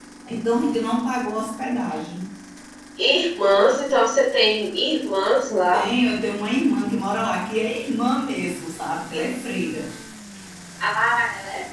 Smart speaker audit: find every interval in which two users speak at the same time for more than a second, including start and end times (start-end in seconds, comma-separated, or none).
none